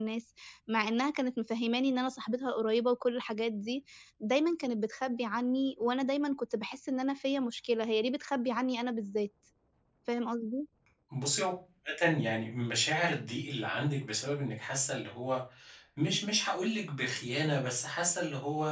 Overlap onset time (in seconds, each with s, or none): none